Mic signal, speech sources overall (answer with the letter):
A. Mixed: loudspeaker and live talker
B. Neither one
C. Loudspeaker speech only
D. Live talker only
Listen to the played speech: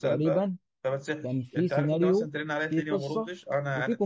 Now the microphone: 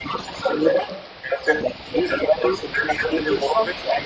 C